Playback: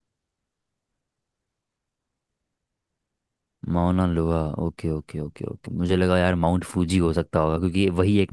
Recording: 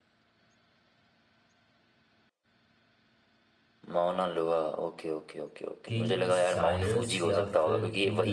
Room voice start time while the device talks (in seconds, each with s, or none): 5.9 s